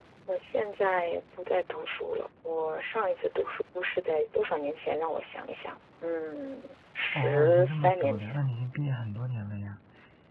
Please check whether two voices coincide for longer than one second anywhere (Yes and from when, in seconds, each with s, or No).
Yes, from 7.1 s